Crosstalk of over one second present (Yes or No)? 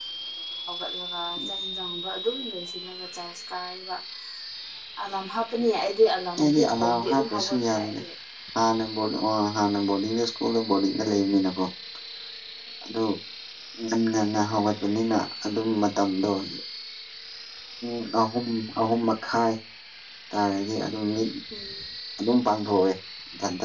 Yes